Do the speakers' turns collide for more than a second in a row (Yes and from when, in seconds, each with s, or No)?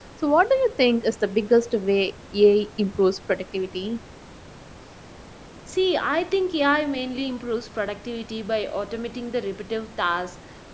No